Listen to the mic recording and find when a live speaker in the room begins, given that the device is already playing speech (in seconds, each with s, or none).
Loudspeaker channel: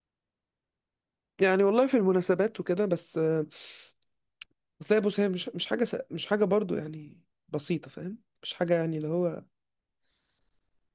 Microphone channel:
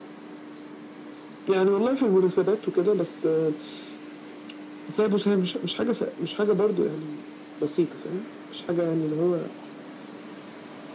none